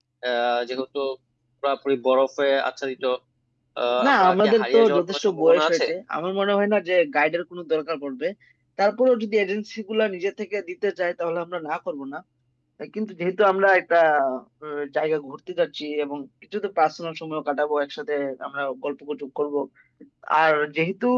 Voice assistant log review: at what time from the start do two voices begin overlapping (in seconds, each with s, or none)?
4.1 s